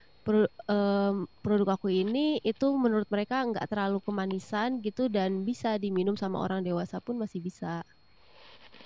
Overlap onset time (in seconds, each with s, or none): none